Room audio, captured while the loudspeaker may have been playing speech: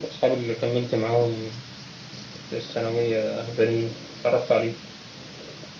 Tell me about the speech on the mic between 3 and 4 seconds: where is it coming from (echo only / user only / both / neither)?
echo only